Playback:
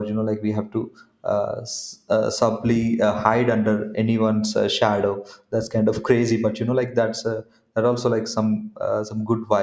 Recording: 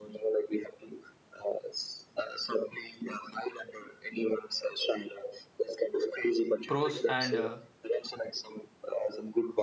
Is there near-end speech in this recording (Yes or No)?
Yes